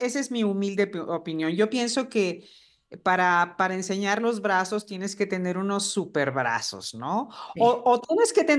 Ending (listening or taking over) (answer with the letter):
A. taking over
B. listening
B